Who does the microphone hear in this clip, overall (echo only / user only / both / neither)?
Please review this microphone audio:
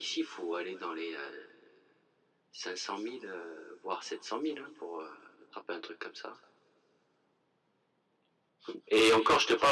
echo only